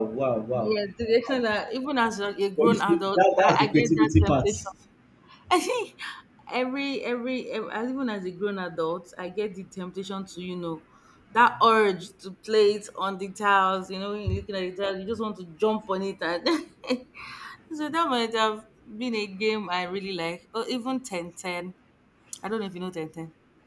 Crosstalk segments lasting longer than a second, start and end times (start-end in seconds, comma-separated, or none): 2.6-4.5